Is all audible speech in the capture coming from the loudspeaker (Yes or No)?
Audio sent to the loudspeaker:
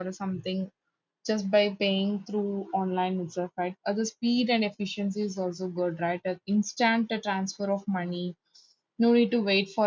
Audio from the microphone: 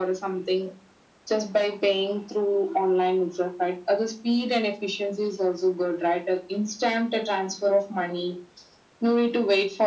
Yes